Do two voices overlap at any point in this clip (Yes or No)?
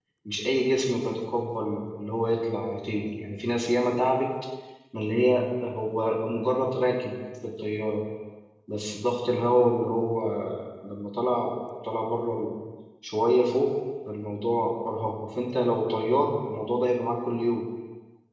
No